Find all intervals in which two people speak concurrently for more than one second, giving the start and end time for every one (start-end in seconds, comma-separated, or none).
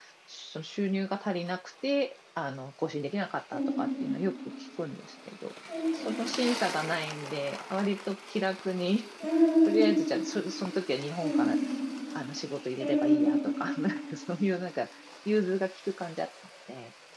none